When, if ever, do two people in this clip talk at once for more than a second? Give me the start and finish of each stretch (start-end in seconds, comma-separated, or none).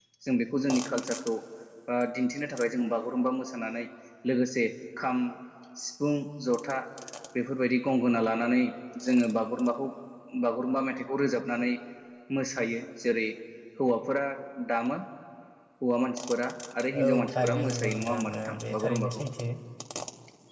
17.0-19.2